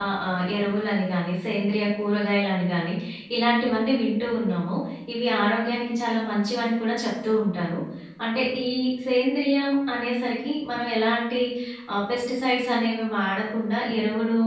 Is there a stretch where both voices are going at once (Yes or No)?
No